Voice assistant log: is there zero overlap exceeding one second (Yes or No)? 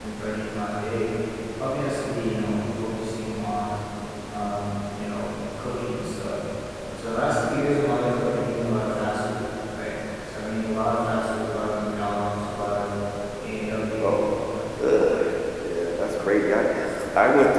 Yes